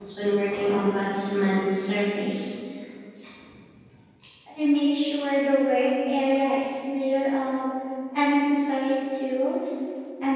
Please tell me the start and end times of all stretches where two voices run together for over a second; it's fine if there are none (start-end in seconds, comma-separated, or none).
none